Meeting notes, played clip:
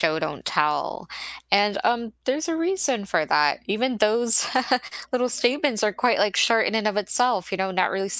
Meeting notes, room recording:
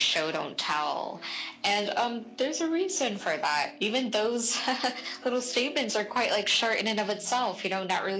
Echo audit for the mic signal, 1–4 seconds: echo only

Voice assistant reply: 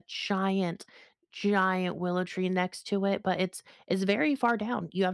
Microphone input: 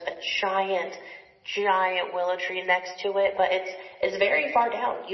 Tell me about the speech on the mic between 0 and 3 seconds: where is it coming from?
echo only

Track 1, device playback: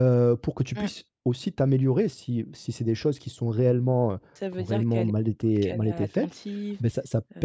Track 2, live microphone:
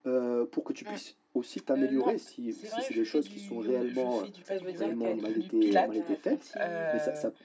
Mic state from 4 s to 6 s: both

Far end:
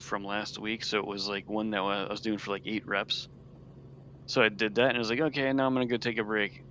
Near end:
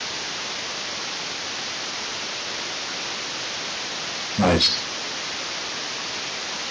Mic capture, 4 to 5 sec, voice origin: user only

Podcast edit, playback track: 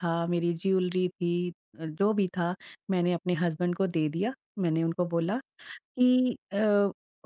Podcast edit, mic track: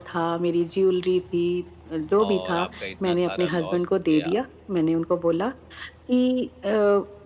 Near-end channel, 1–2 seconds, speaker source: echo only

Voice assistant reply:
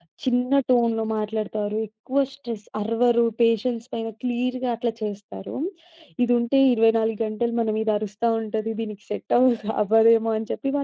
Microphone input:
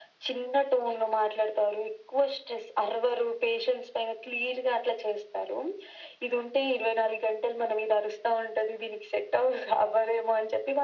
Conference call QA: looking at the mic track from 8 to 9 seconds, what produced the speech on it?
echo only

